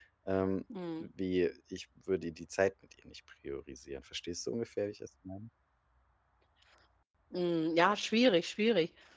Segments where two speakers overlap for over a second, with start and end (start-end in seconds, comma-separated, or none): none